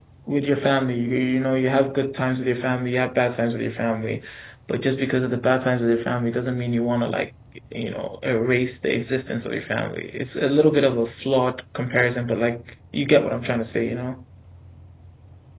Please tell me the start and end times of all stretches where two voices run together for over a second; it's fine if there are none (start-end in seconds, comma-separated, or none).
none